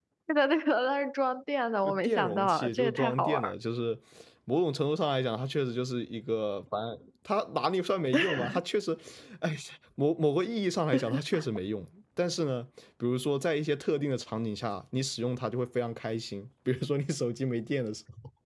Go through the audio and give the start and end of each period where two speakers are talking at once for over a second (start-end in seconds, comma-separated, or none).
1.8-3.5